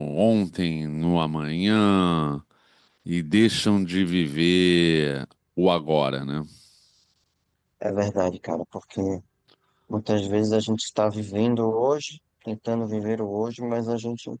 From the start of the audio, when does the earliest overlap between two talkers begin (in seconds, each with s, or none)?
none